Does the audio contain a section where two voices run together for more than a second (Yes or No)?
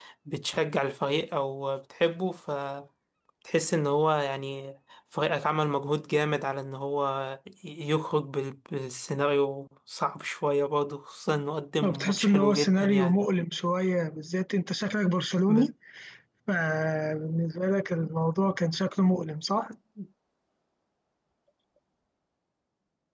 Yes